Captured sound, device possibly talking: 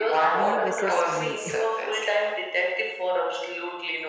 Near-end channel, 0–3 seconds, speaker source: both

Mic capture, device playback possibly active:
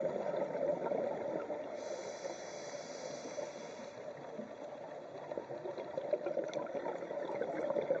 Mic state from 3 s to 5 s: neither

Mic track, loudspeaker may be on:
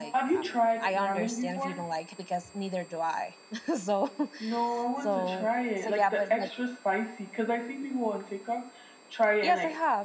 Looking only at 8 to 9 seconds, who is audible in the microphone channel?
echo only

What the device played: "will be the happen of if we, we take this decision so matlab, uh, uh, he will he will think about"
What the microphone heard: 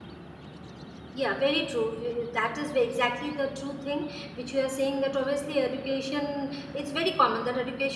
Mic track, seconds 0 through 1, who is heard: neither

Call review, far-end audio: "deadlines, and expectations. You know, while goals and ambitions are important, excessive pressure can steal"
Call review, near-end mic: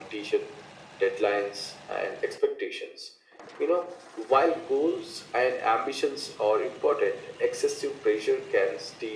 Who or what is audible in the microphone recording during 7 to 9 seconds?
echo only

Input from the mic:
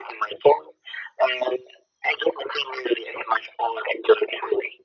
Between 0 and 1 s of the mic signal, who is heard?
echo only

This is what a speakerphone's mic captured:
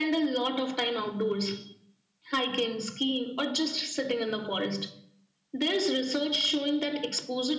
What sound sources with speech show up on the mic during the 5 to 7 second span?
echo only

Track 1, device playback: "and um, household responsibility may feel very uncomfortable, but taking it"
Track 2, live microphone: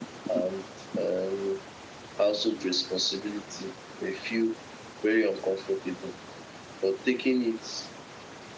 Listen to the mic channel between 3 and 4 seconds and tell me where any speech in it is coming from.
echo only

